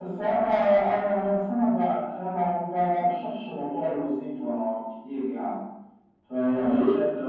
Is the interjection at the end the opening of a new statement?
No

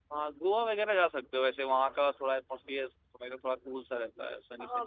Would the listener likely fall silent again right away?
No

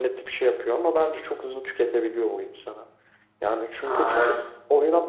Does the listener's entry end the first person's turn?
No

